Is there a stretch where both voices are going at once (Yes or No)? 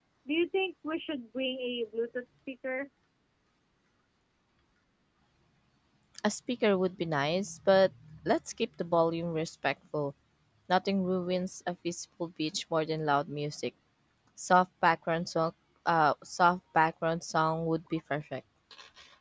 No